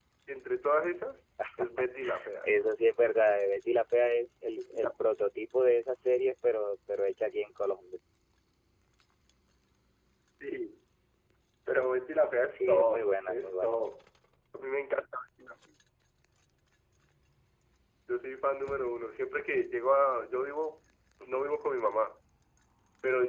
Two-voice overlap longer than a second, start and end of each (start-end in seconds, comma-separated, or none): 12.5-13.8